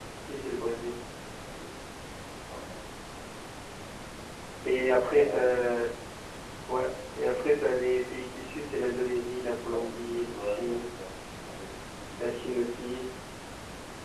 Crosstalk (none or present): present